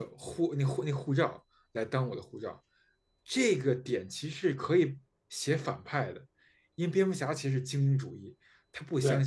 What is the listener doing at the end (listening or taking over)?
listening